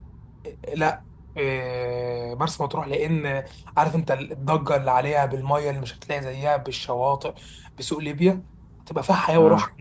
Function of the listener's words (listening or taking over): listening